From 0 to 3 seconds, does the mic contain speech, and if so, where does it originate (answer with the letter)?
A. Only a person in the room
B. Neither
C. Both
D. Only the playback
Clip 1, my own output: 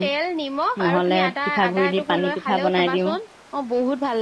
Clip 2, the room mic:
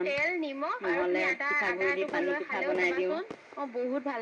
D